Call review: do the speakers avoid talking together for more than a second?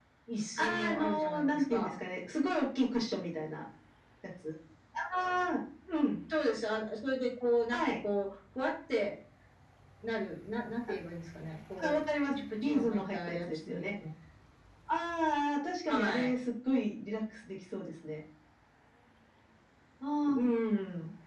No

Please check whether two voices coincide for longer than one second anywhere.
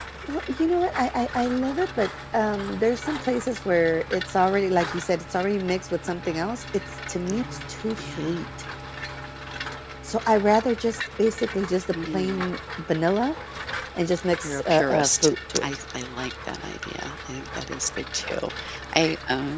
Yes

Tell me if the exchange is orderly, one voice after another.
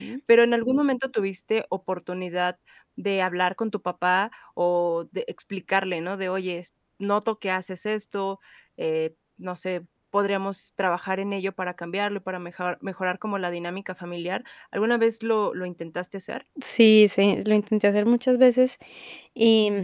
Yes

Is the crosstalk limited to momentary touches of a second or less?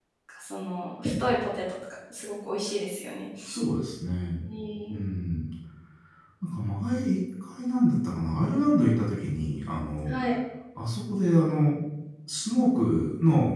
Yes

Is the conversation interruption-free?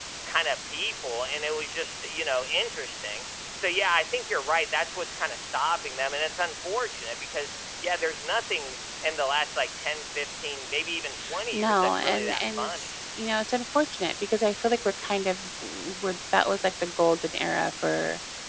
No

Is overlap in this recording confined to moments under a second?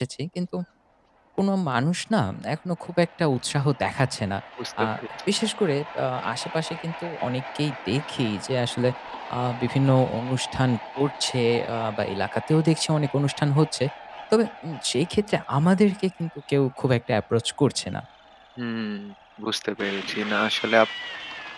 Yes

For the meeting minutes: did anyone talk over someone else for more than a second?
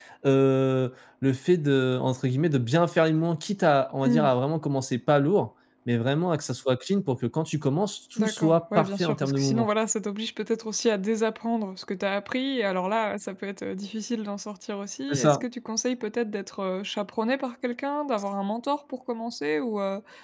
Yes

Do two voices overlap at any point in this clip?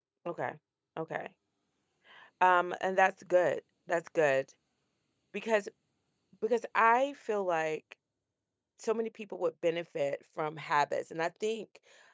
No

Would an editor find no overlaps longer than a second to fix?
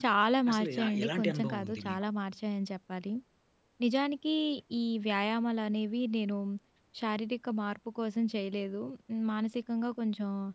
No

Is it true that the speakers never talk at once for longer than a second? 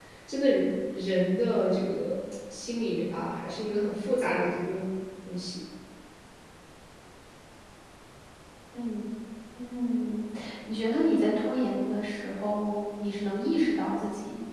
Yes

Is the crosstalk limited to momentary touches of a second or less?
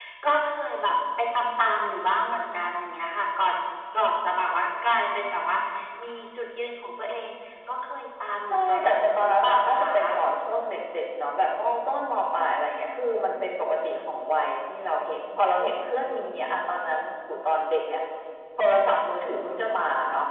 No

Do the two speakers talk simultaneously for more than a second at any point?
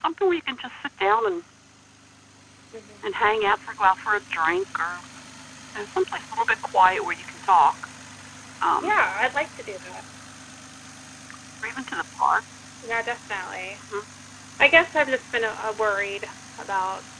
No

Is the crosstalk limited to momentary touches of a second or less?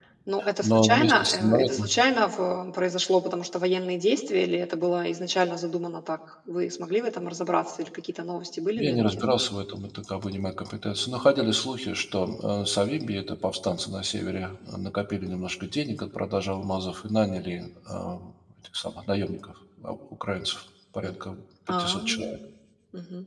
No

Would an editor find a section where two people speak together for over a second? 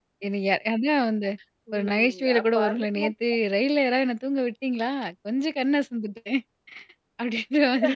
Yes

